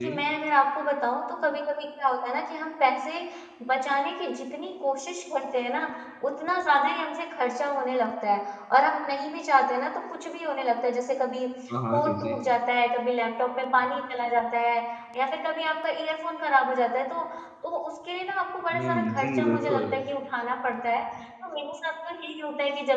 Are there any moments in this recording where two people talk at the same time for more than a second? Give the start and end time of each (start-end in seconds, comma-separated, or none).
18.7-20.0